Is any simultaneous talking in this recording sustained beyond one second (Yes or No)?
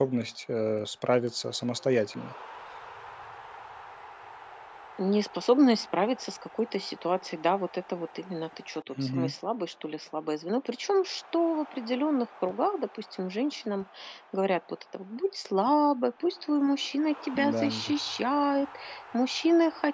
No